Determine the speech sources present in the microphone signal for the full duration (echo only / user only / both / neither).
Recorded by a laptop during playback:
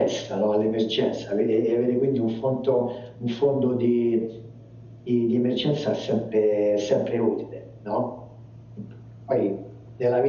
echo only